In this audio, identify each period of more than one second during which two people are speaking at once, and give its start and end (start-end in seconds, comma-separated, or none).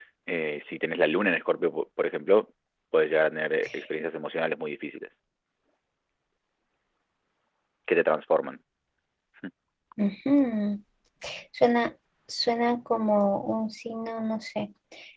none